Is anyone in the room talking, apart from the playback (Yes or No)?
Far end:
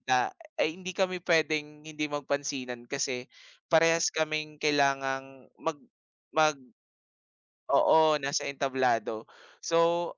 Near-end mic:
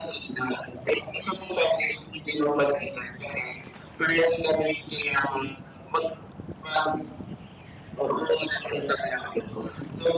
No